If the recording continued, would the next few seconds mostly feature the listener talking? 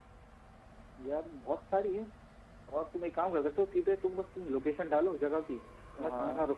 No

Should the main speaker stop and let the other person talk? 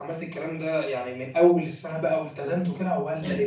Yes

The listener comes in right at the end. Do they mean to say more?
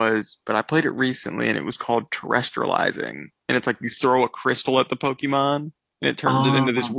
No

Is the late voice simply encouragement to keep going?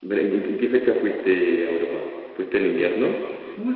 No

